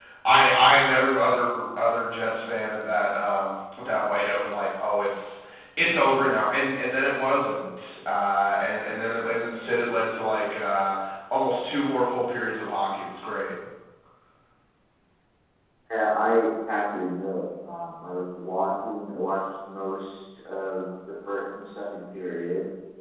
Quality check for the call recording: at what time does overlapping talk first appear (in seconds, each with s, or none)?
none